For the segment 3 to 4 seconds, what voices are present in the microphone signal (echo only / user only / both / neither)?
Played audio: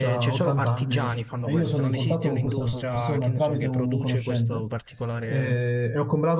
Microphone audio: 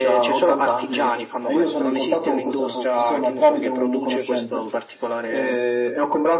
echo only